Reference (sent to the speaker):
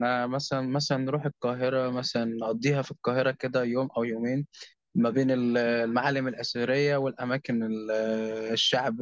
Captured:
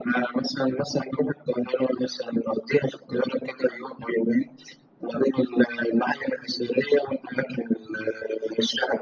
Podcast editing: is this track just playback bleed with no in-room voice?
Yes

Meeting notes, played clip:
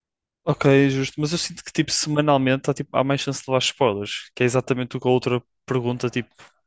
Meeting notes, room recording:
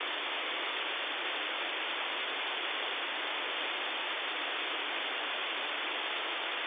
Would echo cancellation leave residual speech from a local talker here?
No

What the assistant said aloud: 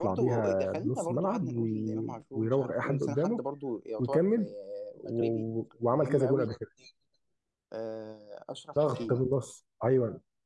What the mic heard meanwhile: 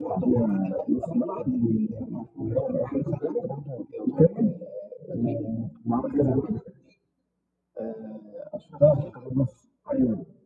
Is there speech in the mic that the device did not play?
No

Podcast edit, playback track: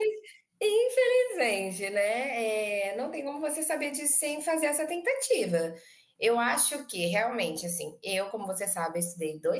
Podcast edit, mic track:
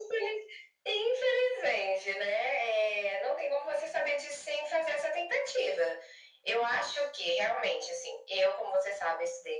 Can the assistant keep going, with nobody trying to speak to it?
Yes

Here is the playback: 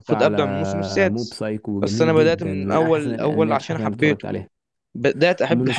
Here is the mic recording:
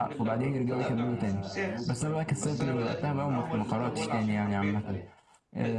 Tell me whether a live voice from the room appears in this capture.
Yes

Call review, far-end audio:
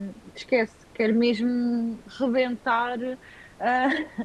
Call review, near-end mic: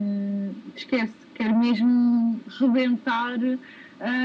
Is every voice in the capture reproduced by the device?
Yes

